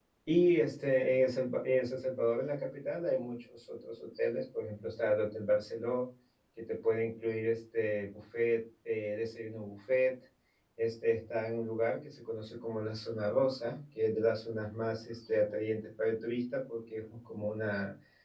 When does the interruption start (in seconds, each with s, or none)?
none